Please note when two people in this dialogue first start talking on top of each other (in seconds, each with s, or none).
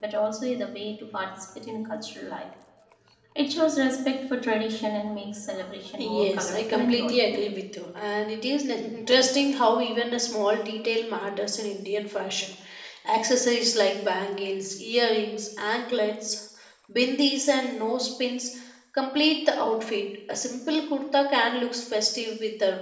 6.0 s